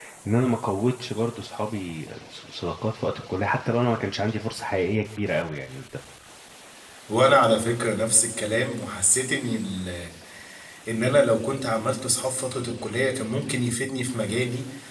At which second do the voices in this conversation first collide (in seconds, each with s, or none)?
none